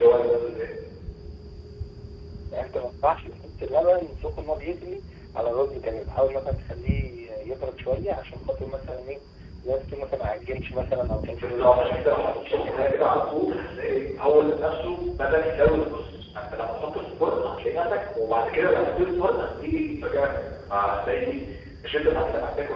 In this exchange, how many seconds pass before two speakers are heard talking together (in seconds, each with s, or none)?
11.4 s